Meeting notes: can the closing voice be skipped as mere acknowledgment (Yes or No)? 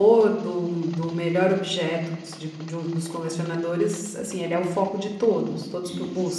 No